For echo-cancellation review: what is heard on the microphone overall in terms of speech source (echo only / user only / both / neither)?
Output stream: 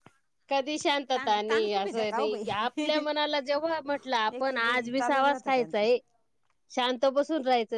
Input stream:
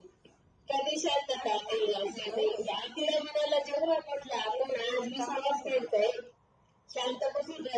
echo only